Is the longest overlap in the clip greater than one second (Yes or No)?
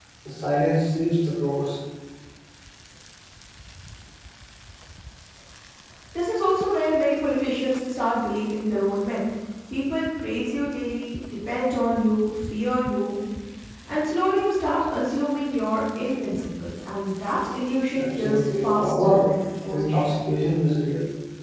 Yes